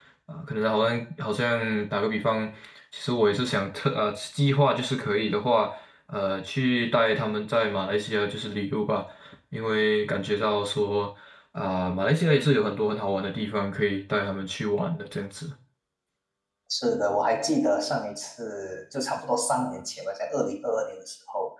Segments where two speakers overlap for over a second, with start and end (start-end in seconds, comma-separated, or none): none